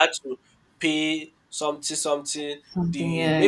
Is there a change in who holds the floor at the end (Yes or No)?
No